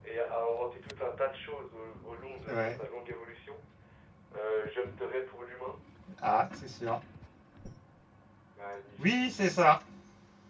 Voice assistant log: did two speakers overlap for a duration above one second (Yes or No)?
No